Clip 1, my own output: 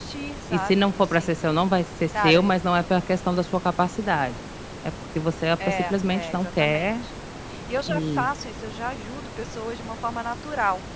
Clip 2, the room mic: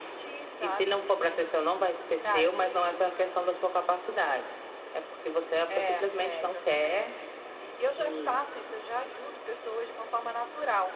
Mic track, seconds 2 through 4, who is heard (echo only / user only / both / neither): echo only